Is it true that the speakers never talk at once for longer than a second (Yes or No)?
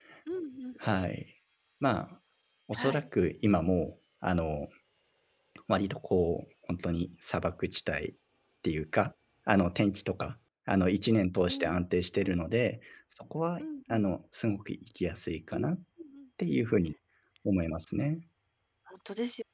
Yes